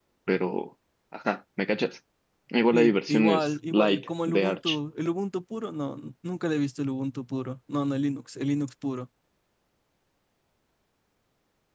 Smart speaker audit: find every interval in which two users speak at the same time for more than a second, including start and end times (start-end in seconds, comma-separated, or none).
2.7-4.8